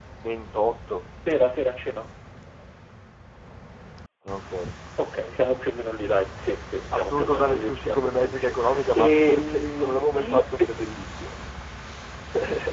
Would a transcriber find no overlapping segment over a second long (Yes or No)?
No